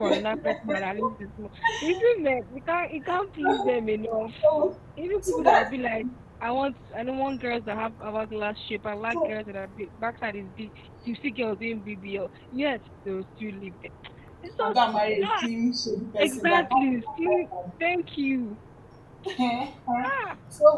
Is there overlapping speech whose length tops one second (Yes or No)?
Yes